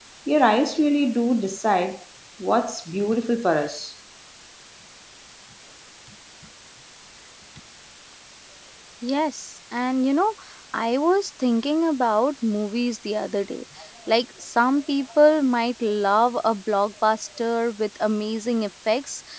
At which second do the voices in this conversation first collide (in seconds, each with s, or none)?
none